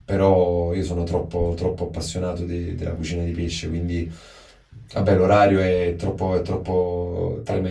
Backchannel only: Yes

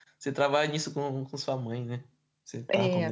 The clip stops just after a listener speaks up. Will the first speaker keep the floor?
No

